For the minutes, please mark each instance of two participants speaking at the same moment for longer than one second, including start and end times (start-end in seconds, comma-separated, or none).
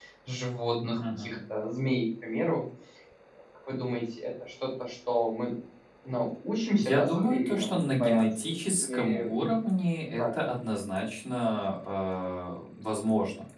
6.8-9.4